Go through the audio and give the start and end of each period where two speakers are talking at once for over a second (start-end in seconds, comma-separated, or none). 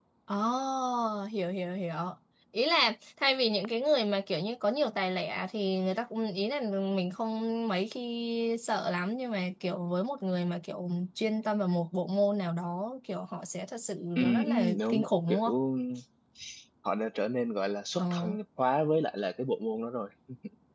14.2-15.4